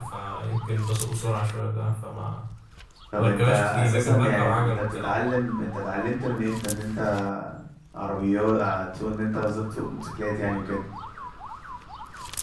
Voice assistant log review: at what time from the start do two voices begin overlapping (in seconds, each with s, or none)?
3.2 s